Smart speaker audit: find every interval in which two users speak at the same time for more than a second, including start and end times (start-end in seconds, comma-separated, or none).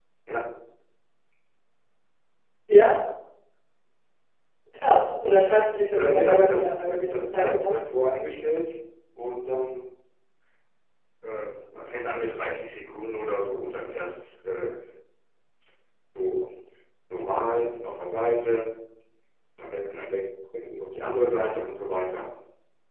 5.9-7.8